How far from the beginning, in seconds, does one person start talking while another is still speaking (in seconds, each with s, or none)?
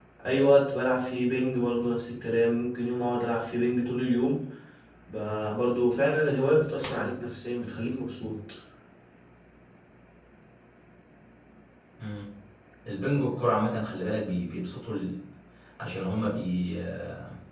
none